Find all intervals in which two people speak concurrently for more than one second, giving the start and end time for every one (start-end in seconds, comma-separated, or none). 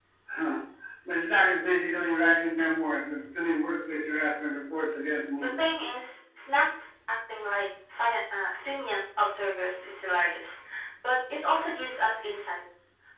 none